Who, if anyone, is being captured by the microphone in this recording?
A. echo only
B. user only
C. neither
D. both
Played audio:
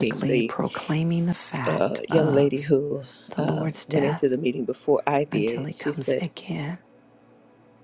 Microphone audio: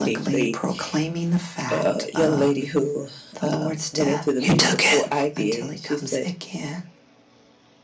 D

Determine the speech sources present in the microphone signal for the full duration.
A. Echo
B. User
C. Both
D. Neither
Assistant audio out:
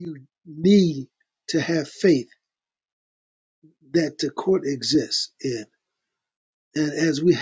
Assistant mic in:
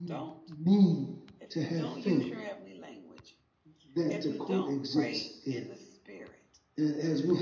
C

